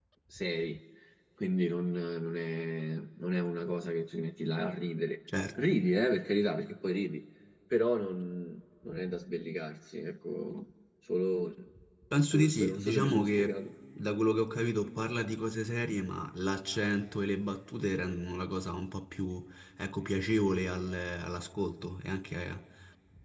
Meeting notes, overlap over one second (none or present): present